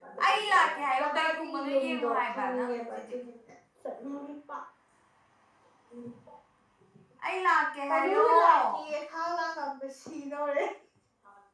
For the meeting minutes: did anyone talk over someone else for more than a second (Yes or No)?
Yes